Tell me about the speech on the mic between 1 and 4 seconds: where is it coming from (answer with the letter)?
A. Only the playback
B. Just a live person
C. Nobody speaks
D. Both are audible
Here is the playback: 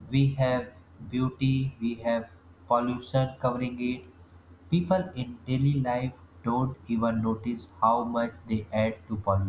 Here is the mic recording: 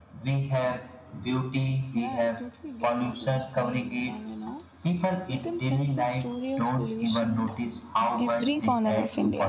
D